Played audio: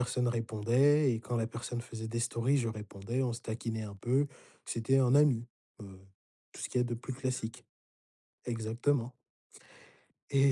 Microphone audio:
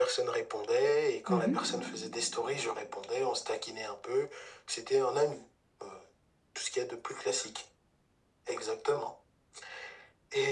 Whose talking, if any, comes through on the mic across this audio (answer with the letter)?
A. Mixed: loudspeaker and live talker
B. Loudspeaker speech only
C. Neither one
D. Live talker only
A